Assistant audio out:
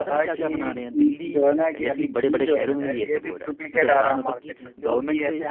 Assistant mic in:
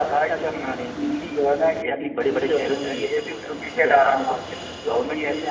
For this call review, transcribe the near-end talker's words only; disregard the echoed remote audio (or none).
none